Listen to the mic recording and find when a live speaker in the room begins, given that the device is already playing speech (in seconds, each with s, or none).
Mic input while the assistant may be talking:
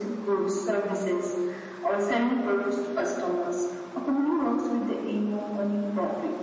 none